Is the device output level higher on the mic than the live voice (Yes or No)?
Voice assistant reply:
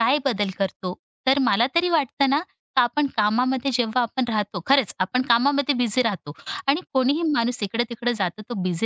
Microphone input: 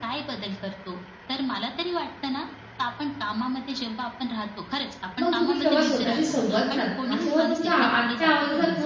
No